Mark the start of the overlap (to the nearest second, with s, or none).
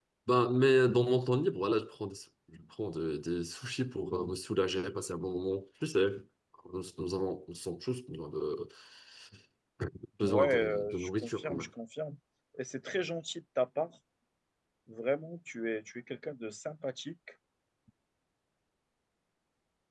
10 s